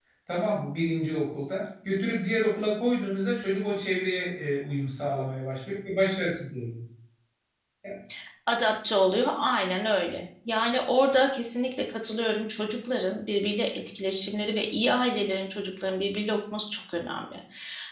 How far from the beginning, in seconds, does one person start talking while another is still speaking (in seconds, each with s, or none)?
none